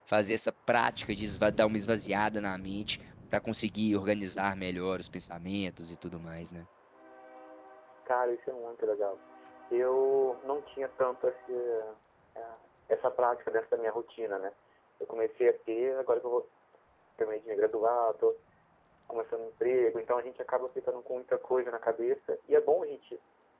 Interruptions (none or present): none